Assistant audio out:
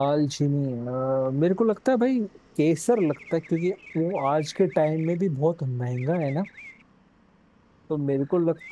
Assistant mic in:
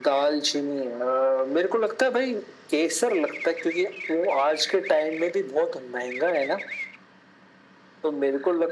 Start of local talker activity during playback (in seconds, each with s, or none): none